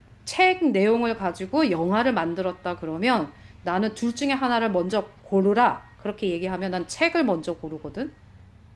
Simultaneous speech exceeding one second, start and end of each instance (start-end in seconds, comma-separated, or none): none